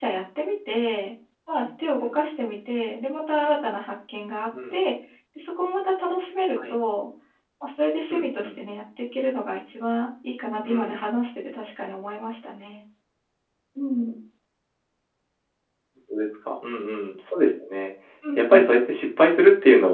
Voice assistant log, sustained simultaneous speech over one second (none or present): none